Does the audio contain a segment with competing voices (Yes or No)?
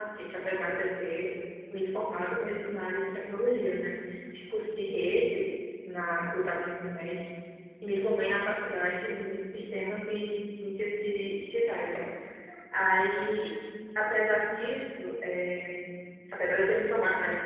No